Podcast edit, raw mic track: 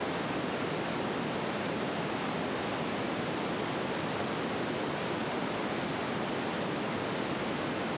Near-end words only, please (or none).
none